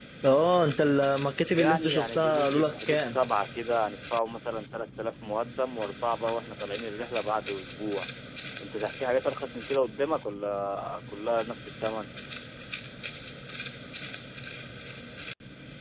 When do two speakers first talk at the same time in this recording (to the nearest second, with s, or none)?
2 s